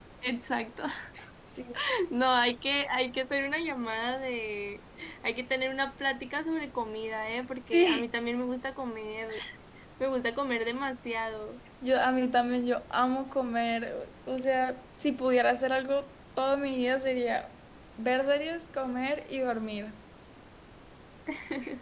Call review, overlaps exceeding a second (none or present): none